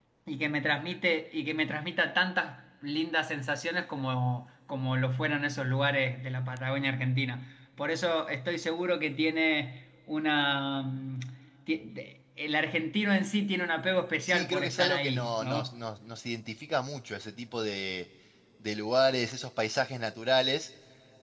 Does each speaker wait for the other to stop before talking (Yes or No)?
No